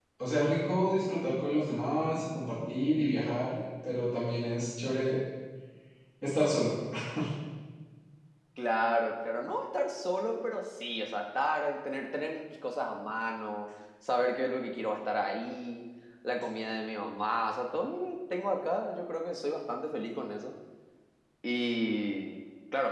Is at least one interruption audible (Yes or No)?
No